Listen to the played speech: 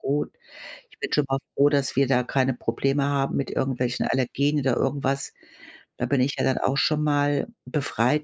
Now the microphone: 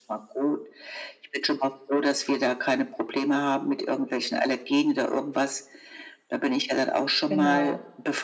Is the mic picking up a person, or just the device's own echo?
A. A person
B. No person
A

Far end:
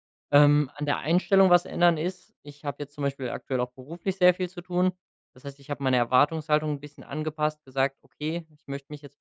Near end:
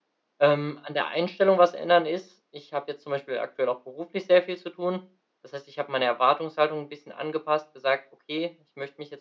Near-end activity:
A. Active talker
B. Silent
B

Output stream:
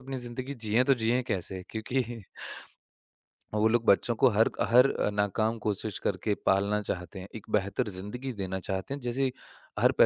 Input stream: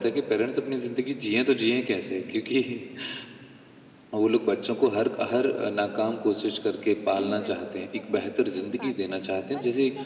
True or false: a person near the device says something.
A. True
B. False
A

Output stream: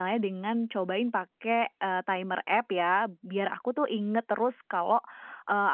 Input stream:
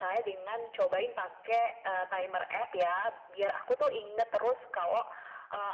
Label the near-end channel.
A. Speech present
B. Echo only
B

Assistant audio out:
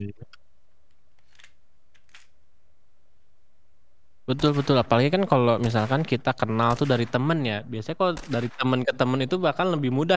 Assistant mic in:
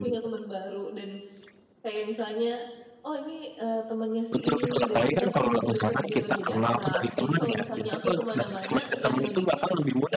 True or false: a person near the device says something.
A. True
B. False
A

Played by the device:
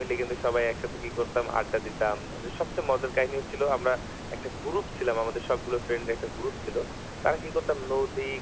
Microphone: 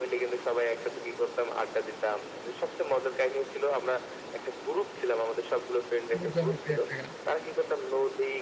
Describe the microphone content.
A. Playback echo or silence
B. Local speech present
B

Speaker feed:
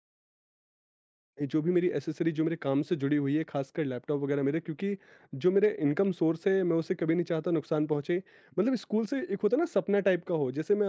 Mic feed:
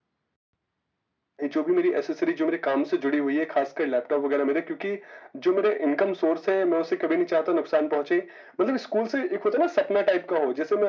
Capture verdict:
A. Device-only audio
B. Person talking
A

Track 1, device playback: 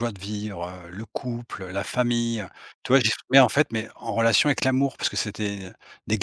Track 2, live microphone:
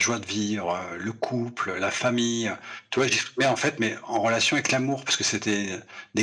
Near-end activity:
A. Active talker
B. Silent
B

